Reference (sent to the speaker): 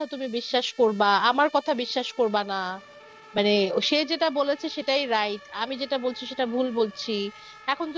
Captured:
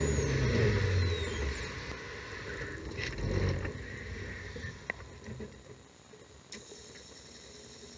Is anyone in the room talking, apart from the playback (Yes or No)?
No